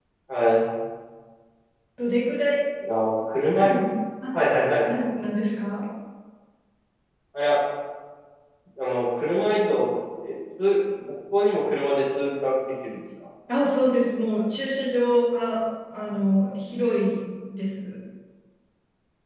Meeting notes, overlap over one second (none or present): none